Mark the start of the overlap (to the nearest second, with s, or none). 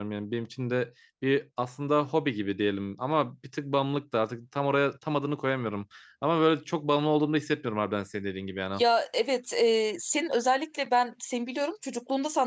none